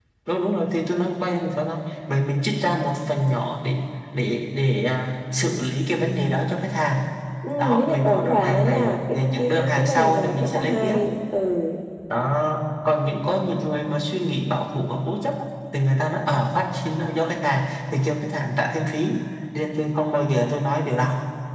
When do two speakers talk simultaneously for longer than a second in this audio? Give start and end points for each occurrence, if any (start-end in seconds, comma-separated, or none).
7.6-10.9